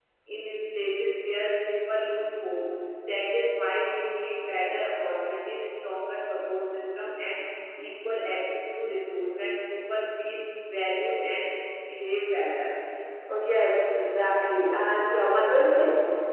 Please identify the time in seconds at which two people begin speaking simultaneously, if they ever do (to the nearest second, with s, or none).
none